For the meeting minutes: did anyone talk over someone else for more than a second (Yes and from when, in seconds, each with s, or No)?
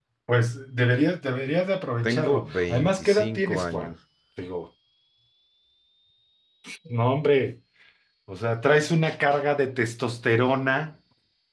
Yes, from 2.0 s